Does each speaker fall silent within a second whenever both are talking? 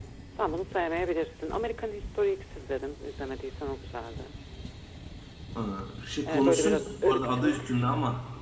No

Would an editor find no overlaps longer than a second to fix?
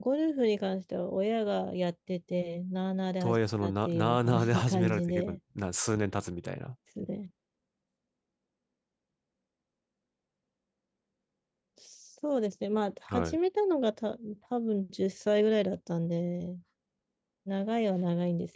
No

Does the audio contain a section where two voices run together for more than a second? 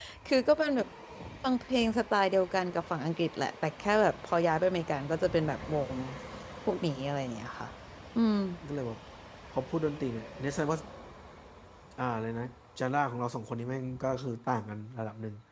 No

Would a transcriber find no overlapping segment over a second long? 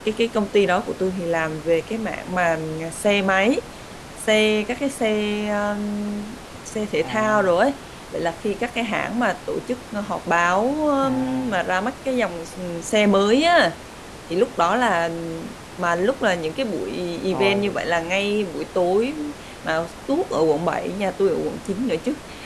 Yes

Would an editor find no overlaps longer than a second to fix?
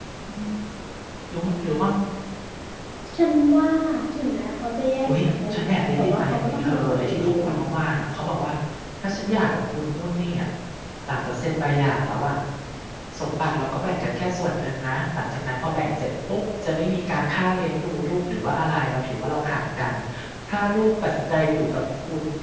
No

